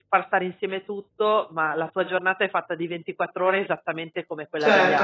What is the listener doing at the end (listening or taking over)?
taking over